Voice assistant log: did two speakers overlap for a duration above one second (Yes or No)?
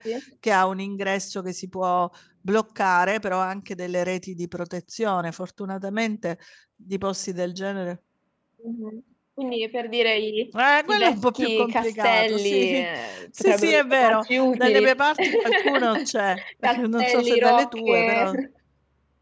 Yes